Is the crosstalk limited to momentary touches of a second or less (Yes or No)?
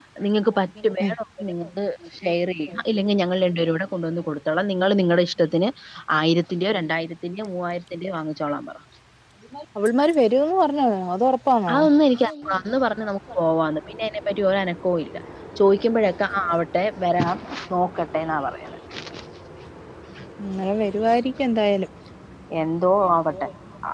Yes